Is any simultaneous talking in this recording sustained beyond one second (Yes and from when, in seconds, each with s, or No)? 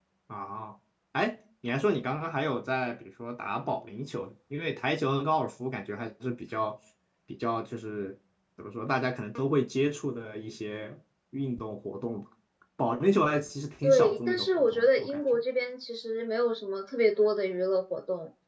Yes, from 13.8 s